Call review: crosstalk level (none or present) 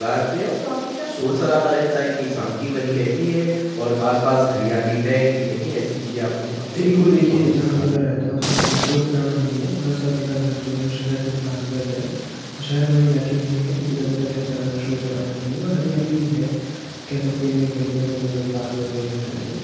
present